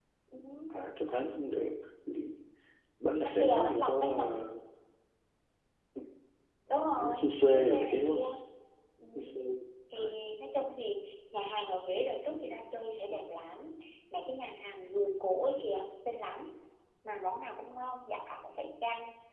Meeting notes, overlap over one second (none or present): present